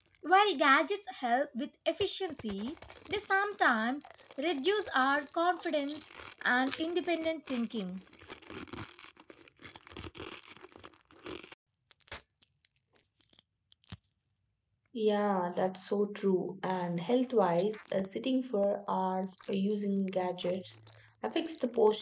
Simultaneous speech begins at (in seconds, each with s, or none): none